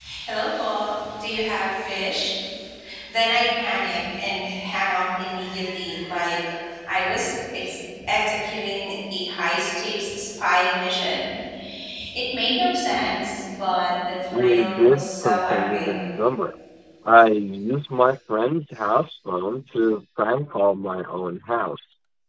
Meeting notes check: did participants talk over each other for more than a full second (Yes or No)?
Yes